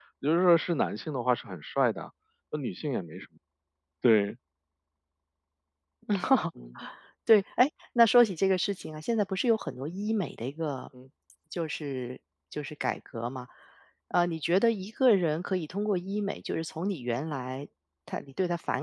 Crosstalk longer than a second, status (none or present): none